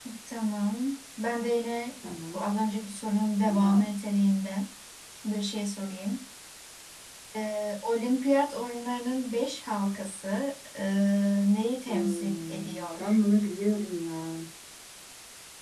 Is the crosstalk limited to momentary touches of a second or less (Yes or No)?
No